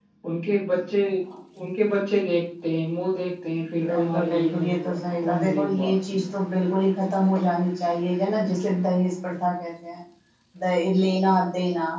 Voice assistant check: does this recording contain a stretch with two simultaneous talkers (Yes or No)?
Yes